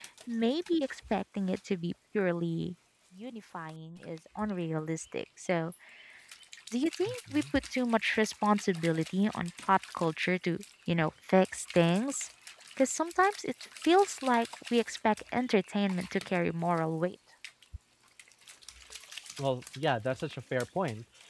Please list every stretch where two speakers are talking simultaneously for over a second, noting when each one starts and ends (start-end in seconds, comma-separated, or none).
none